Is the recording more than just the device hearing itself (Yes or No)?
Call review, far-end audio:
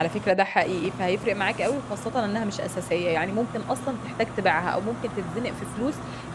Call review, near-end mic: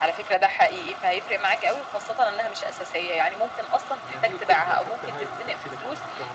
Yes